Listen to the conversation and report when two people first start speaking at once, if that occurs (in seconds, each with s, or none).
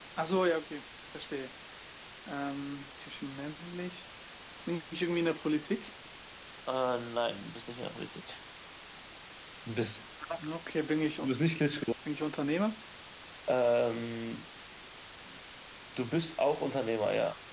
none